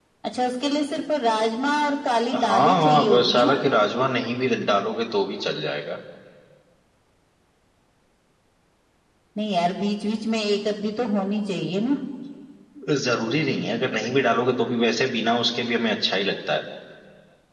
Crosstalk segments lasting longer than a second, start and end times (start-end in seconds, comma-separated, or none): 2.3-3.6